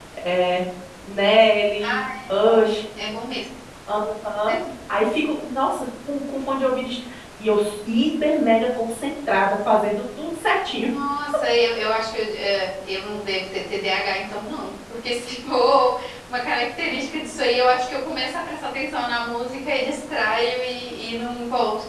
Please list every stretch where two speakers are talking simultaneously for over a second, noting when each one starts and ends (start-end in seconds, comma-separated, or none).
none